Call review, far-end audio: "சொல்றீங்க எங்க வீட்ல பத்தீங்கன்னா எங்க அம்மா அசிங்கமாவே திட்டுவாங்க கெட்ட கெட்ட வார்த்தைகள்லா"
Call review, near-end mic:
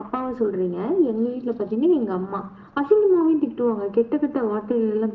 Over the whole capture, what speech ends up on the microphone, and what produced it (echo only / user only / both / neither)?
echo only